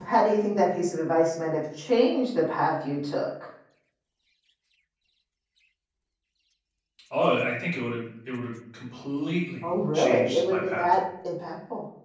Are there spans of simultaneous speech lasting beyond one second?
Yes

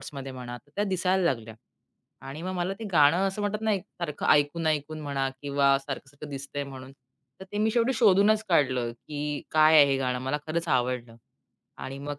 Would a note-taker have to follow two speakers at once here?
No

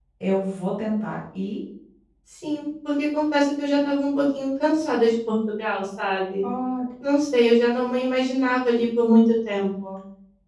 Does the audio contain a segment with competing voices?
No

